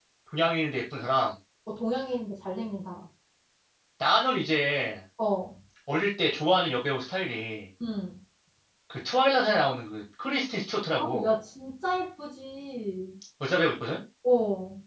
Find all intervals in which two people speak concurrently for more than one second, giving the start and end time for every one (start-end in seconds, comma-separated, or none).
none